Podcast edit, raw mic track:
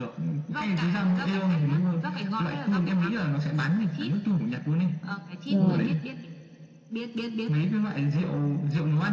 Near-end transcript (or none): rồi